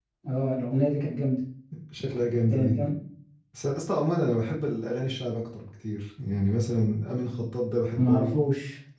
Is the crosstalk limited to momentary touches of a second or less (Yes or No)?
Yes